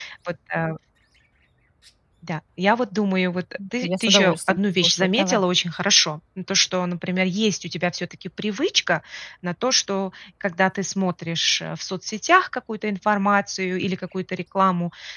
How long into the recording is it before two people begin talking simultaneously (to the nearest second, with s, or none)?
4 s